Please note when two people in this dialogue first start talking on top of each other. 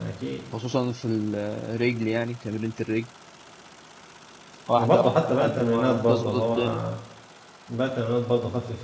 4.8 s

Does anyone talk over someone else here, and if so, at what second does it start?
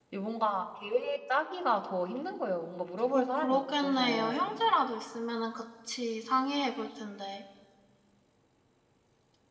3.1 s

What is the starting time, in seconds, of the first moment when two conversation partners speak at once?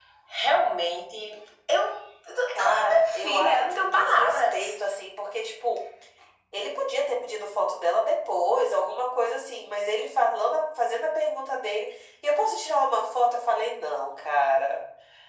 2.5 s

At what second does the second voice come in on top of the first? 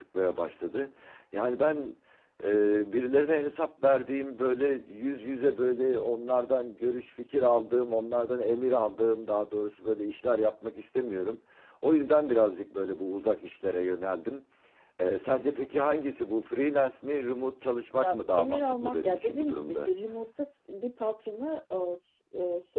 18.0 s

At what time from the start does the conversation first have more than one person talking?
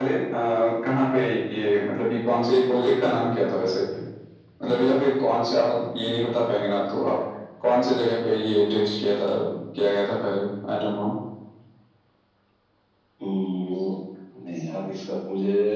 none

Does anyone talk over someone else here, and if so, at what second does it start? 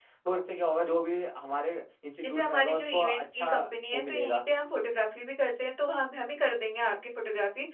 2.2 s

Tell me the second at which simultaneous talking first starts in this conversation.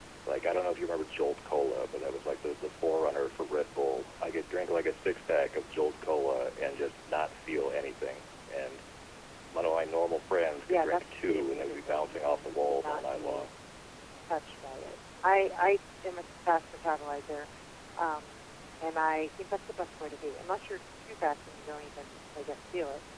10.7 s

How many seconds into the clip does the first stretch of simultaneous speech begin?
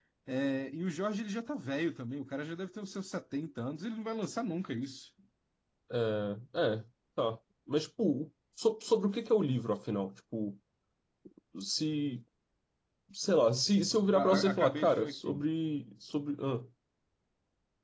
14.1 s

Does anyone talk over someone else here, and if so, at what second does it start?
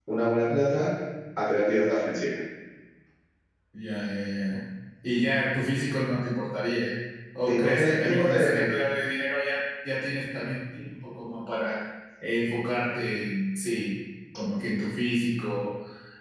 7.5 s

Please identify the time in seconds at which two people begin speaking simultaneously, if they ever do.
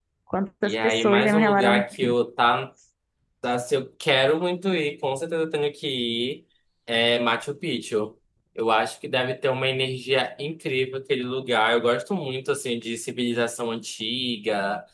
0.6 s

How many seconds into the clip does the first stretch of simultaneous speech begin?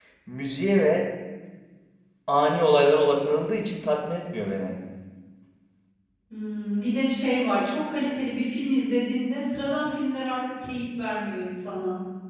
none

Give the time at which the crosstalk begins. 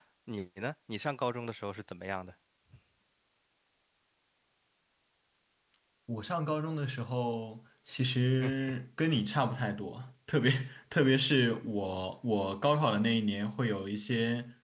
none

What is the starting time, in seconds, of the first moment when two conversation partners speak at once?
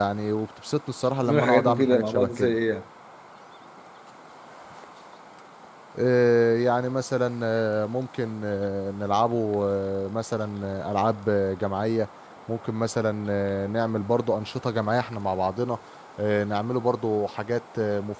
1.2 s

